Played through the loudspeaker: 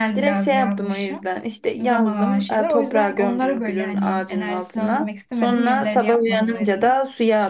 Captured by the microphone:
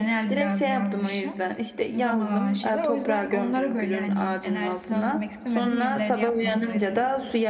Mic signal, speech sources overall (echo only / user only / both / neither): echo only